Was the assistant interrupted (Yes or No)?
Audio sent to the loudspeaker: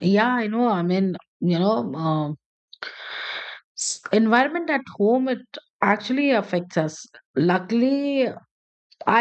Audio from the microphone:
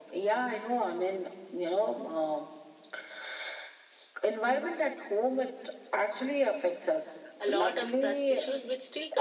Yes